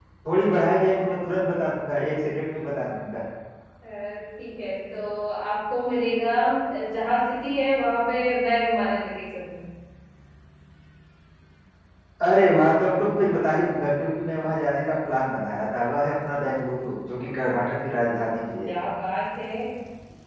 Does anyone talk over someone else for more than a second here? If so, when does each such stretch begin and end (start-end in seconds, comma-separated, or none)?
none